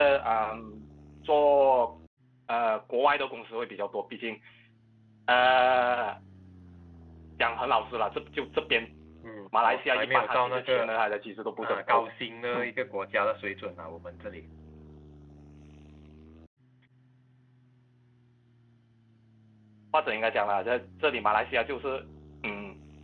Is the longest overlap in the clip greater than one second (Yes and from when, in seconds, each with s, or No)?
Yes, from 9.6 s